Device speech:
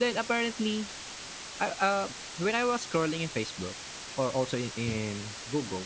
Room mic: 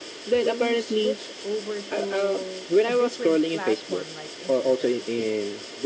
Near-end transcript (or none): when you switch over to a different platform like Instagram,